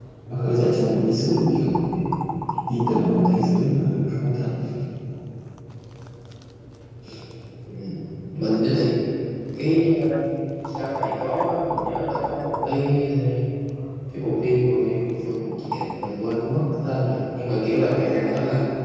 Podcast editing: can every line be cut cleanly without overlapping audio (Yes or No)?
Yes